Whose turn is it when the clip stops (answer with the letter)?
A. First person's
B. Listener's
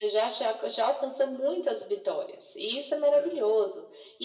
A